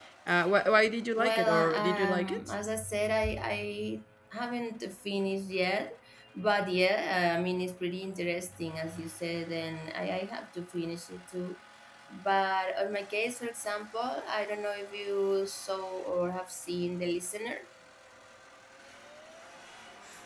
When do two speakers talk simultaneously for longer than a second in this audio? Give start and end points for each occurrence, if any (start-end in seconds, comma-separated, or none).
1.2-2.5